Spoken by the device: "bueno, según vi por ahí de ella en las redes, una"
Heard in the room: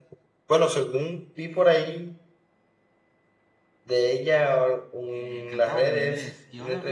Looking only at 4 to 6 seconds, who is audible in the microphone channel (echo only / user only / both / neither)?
both